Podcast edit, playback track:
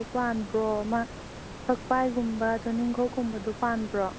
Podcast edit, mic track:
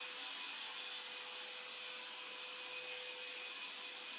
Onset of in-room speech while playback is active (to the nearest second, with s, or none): none